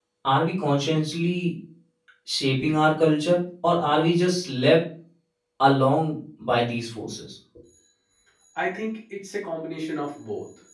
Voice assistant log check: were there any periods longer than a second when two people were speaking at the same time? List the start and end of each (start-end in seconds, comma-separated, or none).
none